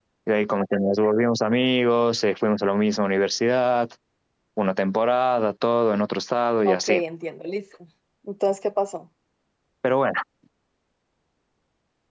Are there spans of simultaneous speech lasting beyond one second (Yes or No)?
No